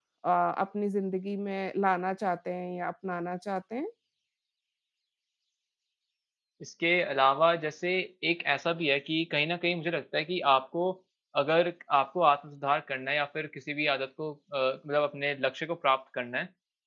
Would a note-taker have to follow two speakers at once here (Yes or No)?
No